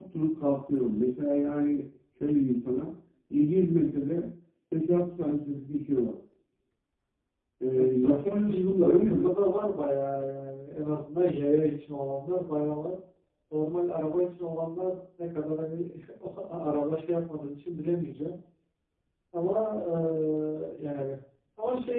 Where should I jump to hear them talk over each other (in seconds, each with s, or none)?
7.8 s